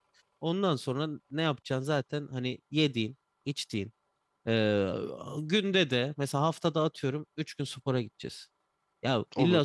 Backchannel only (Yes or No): Yes